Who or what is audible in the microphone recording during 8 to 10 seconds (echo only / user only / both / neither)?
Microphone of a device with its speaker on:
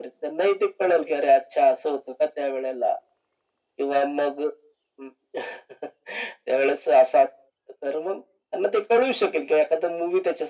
echo only